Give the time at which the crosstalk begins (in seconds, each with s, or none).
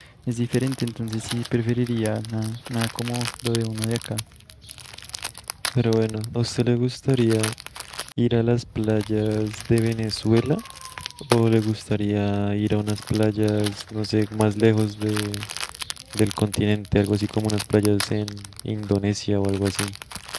none